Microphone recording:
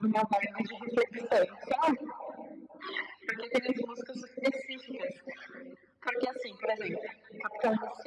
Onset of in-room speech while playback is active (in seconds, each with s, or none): none